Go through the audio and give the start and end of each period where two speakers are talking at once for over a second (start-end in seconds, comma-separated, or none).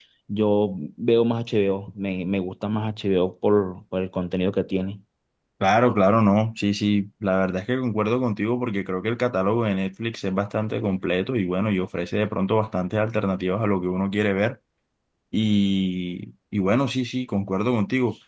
none